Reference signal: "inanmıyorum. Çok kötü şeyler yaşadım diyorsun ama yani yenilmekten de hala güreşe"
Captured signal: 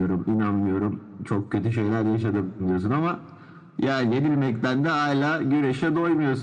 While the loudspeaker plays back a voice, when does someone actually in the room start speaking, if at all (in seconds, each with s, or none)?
none